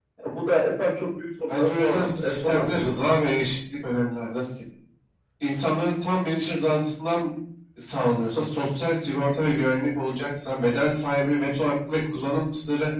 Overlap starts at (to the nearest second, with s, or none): 1 s